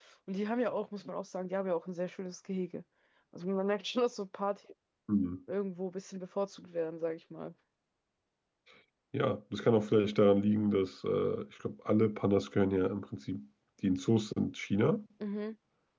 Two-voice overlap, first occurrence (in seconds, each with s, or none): none